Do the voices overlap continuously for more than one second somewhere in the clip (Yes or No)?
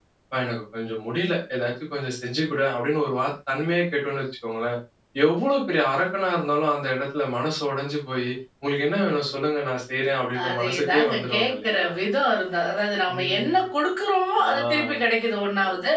Yes